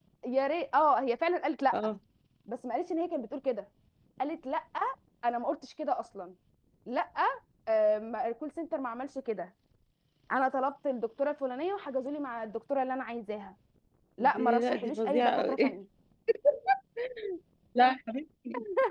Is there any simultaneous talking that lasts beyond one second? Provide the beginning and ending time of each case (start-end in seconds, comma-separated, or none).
14.2-15.7